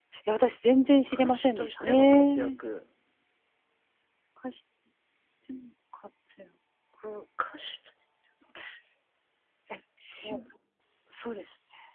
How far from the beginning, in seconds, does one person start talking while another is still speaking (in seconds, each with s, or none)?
1.1 s